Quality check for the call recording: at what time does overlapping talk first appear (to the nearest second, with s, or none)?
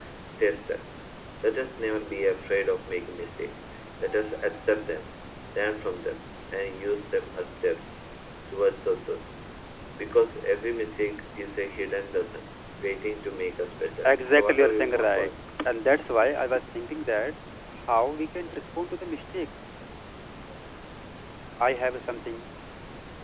14 s